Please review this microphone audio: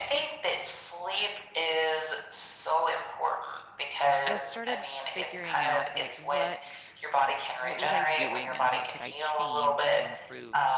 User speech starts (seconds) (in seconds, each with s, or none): 4.2 s